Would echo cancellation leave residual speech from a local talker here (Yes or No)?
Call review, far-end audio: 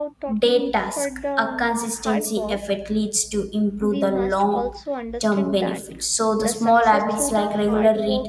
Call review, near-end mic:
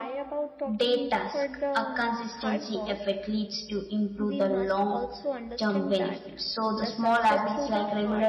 No